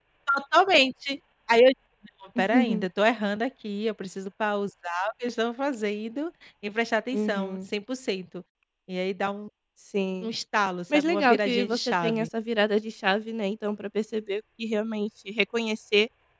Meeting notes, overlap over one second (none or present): present